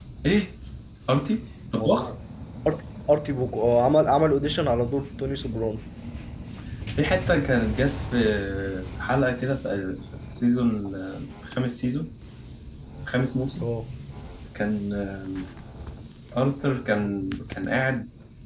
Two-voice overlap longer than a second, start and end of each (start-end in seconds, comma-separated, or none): none